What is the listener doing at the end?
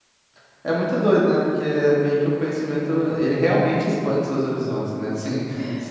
listening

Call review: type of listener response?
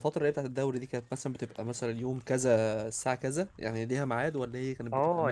taking over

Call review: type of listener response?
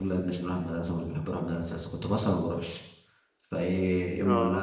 listening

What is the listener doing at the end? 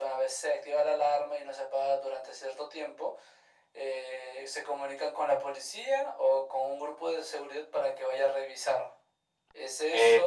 listening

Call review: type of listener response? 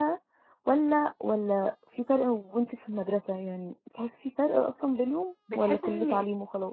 taking over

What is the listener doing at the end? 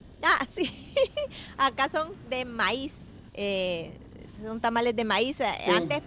listening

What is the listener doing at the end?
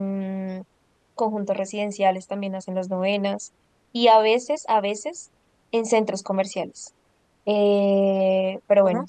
listening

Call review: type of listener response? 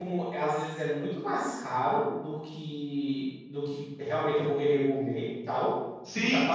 taking over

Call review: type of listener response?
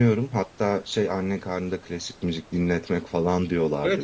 taking over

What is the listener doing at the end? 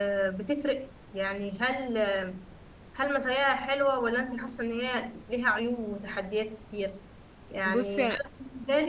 listening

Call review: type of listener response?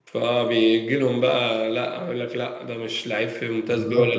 taking over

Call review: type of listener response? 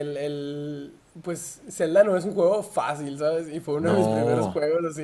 listening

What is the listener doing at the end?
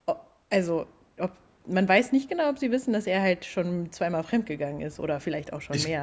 taking over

